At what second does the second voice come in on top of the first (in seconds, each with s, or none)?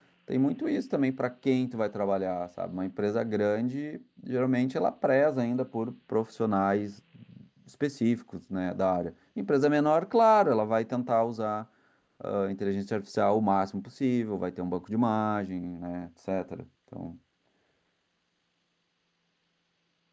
none